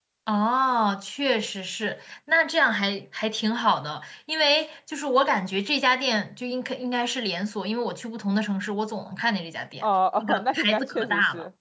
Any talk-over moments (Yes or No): Yes